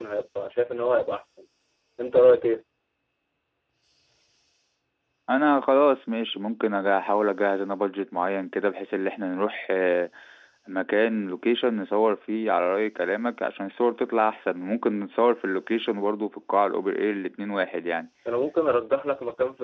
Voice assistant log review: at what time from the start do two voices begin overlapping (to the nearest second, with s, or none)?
none